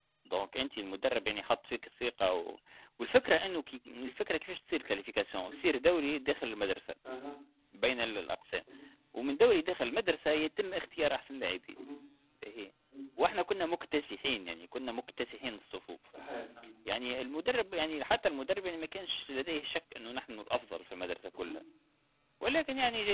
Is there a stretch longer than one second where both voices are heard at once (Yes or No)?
No